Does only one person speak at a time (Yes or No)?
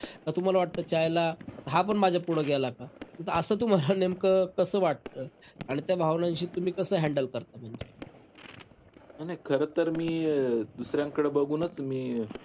Yes